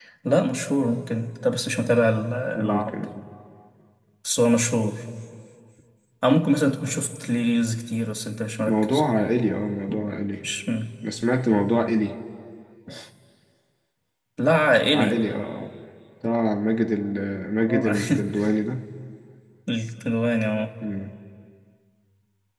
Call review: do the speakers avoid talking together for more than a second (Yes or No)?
Yes